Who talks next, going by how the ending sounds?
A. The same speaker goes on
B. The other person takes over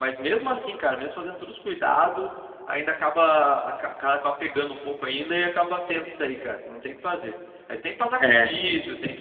A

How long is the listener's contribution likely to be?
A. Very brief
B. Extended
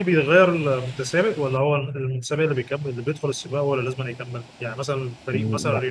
A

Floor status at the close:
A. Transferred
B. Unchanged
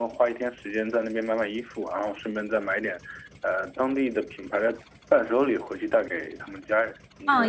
A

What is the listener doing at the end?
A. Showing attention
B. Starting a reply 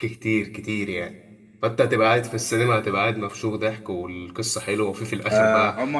B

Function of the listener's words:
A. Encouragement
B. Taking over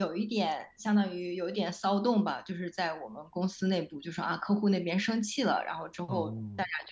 A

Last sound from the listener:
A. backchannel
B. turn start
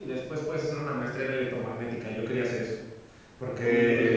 B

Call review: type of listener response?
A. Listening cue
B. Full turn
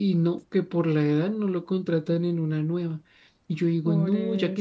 A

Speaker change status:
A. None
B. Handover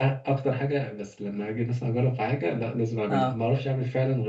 A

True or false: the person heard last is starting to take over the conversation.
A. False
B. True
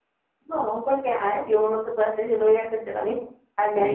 B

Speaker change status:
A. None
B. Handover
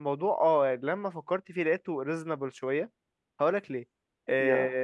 A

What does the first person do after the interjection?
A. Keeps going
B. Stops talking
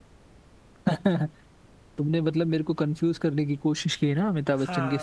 B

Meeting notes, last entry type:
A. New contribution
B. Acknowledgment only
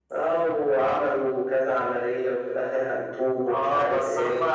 A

